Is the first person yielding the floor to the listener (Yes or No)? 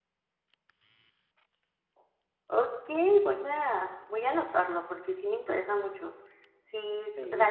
No